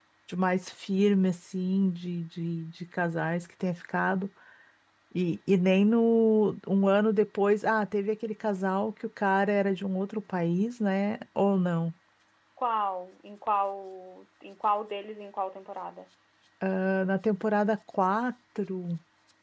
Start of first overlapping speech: none

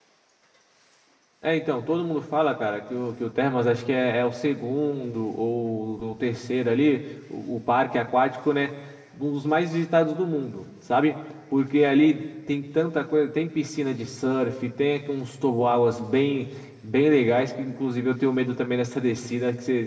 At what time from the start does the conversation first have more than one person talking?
none

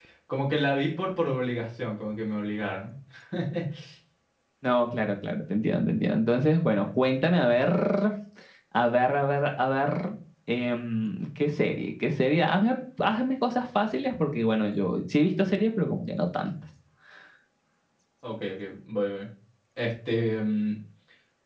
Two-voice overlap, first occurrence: none

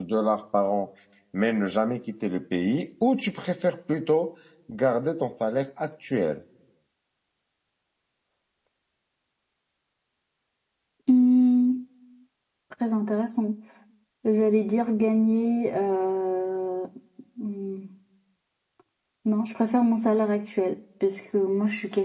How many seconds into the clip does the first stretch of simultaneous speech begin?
none

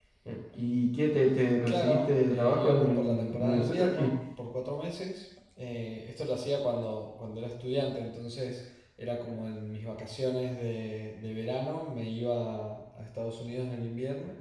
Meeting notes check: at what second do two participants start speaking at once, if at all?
2 s

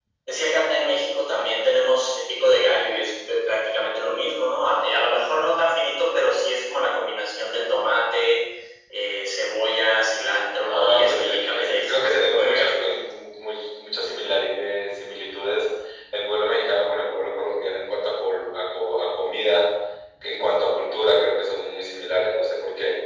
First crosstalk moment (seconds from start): 11 s

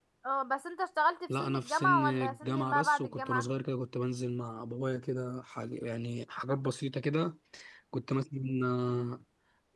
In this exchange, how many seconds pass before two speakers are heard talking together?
1 s

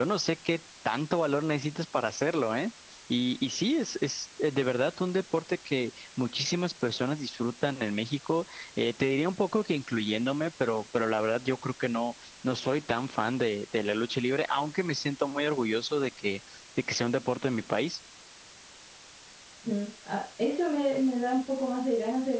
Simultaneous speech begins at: none

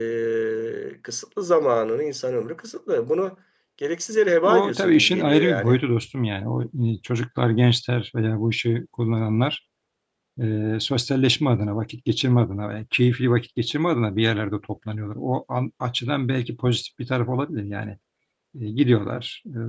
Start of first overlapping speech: 4 s

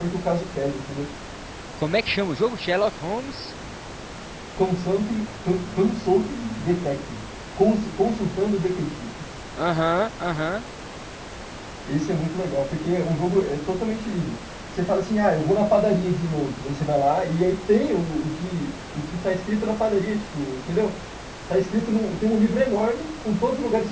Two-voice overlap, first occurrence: none

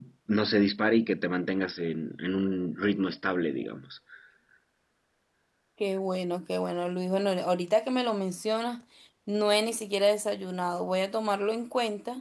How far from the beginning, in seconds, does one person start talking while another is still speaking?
none

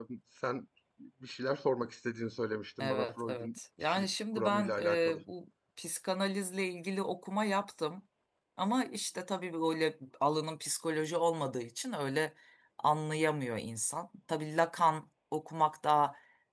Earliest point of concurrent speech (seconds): 3 s

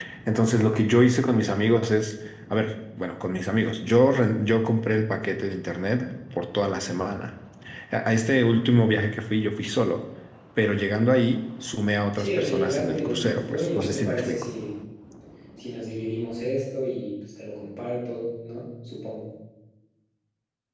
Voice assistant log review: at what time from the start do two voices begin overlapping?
12 s

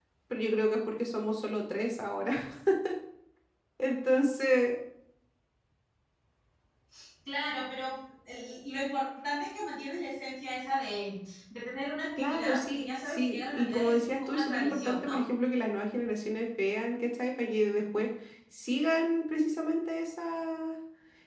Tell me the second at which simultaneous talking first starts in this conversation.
12 s

